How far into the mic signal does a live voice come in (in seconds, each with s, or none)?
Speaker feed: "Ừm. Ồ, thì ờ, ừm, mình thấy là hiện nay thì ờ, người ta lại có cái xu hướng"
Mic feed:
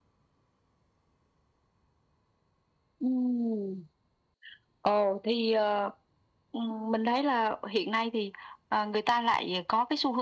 none